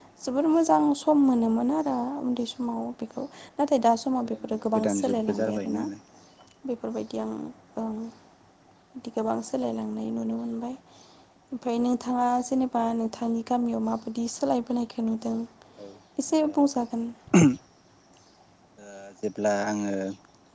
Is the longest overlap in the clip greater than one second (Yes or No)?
Yes